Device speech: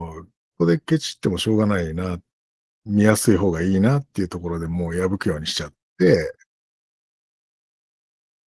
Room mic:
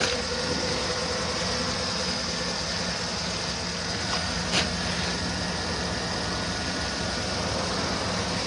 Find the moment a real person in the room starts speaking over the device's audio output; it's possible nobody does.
none

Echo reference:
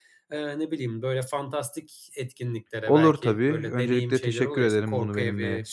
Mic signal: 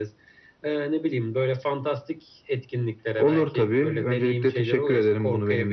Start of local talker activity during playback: none

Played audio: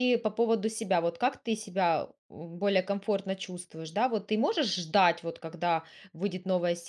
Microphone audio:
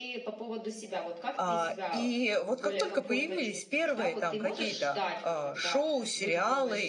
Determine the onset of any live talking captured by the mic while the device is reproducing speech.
1.3 s

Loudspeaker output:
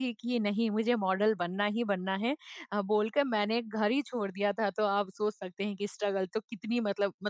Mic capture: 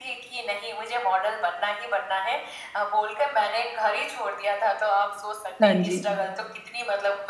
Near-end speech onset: 5.6 s

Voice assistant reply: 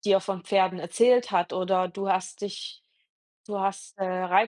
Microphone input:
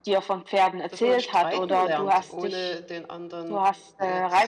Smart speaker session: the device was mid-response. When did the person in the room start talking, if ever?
0.9 s

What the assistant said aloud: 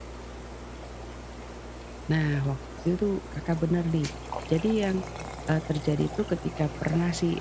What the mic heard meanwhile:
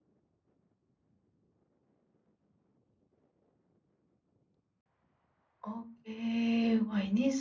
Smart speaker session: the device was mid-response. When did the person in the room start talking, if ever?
5.7 s

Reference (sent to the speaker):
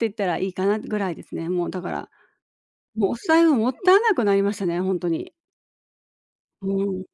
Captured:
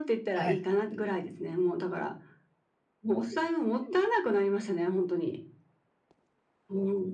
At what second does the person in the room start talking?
0.3 s

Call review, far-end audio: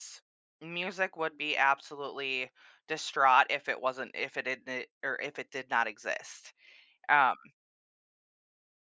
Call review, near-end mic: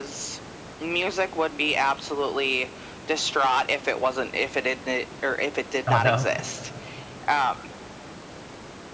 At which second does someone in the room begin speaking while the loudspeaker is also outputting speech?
5.9 s

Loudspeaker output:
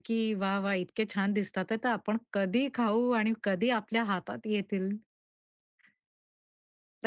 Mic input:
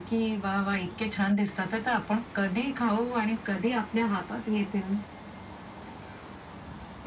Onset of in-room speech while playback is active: none

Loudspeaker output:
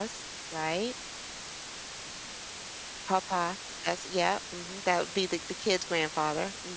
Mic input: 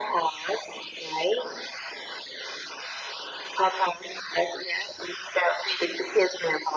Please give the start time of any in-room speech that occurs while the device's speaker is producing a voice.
none

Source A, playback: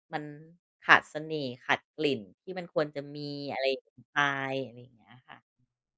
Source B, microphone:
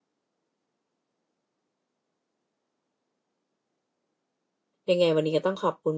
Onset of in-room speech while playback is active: 4.9 s

